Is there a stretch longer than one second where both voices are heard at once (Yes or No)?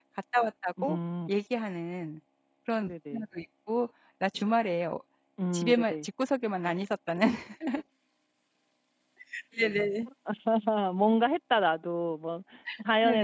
No